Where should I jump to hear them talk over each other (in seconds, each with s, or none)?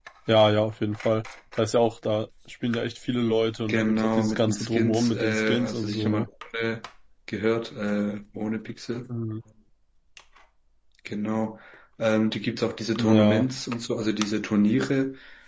3.7 s